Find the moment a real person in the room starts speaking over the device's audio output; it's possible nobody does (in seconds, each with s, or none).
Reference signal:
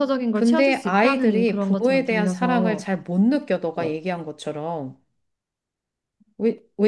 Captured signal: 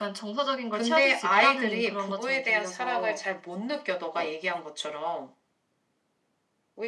none